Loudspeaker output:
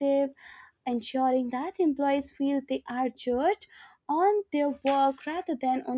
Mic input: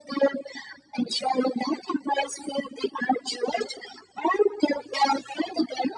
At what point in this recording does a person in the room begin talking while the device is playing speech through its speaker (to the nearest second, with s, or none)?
none